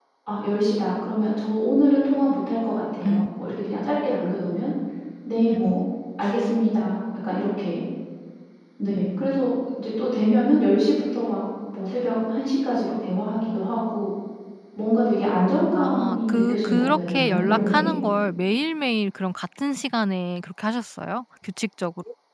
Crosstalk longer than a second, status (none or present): present